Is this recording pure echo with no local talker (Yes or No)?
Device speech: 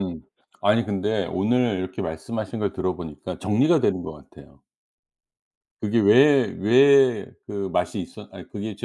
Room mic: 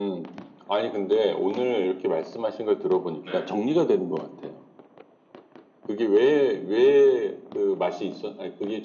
No